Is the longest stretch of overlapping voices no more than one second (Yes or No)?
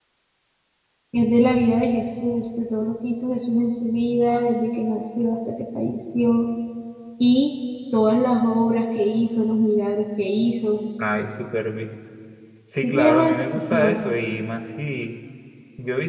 No